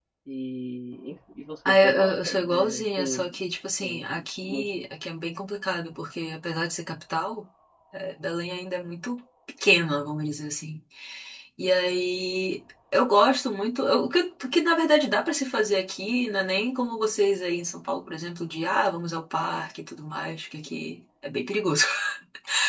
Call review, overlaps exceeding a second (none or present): present